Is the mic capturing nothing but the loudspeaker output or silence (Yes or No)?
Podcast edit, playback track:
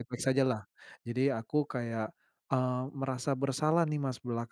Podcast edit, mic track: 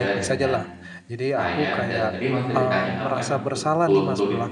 No